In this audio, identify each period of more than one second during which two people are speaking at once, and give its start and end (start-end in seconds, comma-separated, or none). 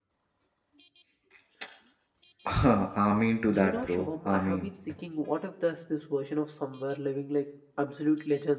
3.5-4.7